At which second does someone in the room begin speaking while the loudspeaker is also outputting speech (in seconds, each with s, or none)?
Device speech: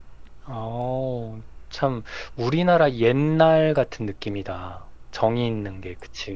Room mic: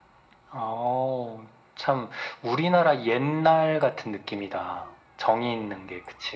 none